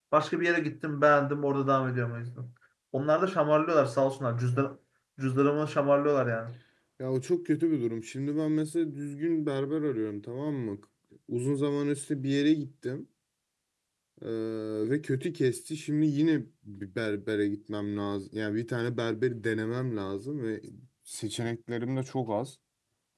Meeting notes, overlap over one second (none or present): none